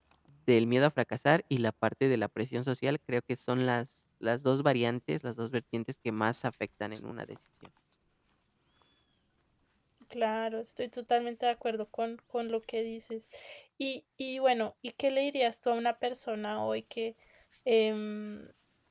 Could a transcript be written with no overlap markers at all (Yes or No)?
Yes